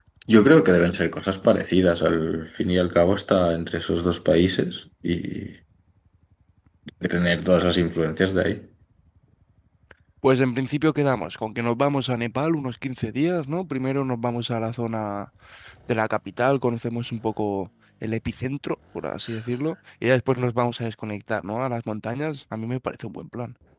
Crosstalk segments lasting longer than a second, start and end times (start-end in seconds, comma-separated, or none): none